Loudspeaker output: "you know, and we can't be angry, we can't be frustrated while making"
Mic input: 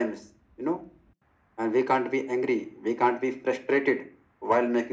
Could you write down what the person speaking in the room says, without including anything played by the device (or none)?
none